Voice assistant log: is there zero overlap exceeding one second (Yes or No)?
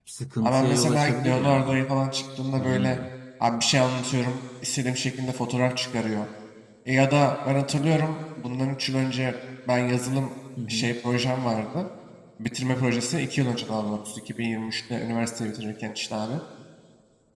No